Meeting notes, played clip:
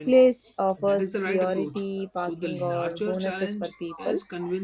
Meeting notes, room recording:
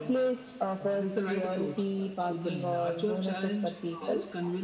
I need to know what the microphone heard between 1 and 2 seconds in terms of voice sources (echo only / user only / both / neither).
echo only